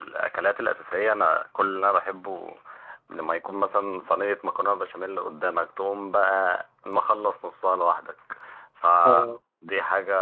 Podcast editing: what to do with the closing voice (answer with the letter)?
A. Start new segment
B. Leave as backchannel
B